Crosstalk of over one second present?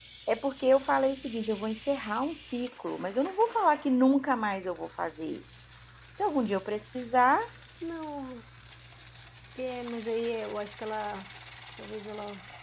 No

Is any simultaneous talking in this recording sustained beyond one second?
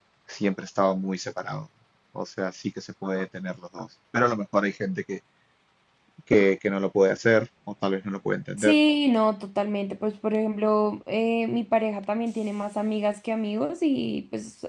No

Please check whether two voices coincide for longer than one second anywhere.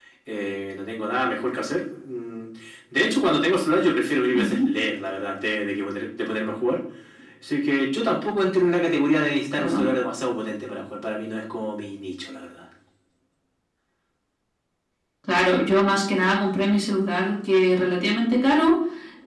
No

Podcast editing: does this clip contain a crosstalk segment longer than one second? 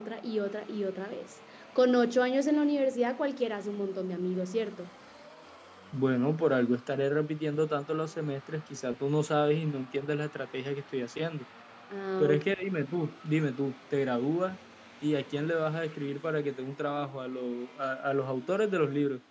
No

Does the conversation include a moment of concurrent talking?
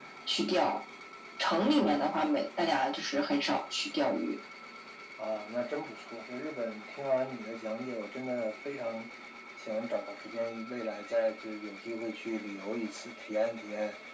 No

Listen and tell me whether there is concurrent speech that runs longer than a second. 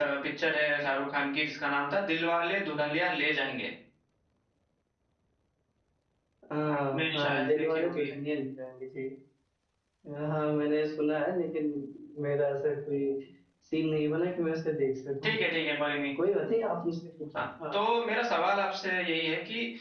Yes, from 6.7 s

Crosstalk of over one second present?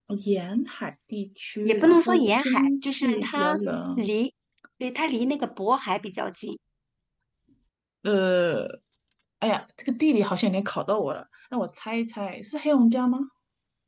Yes, from 1.6 s

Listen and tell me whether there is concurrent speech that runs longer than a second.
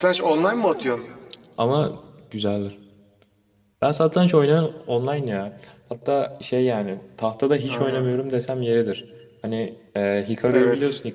No

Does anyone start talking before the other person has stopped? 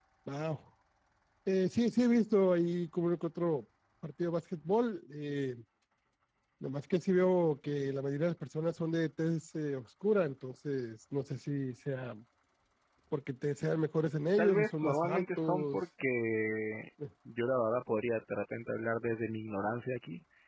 Yes, from 14.4 s

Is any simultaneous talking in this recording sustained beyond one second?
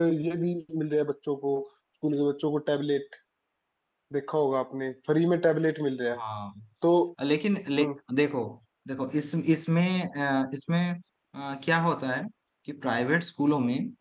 No

